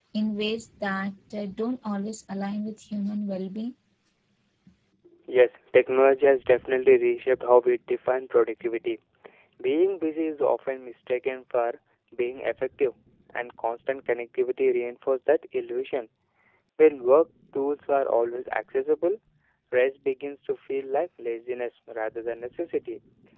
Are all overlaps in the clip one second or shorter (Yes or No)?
Yes